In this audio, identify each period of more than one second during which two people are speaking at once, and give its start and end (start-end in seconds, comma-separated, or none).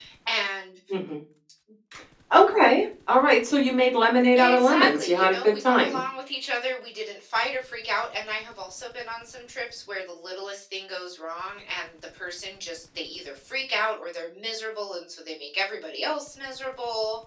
4.4-6.0